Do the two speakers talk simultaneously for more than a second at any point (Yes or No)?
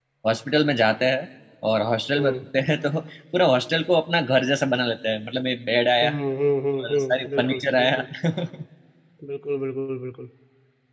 Yes